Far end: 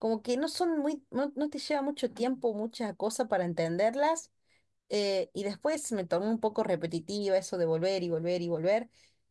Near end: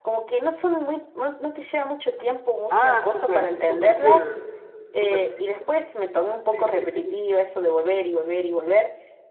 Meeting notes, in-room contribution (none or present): present